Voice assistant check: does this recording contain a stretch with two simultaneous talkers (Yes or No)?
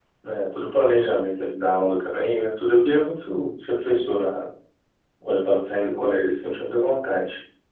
No